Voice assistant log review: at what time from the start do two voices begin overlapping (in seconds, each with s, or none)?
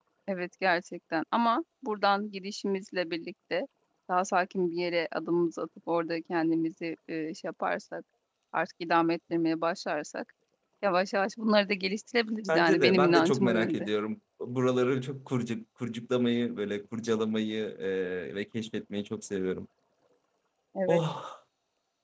12.5 s